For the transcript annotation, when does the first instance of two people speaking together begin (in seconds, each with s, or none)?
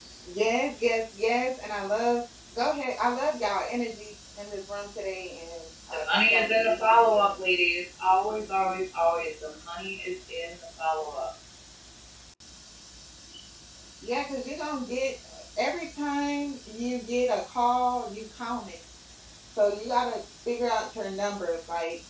5.9 s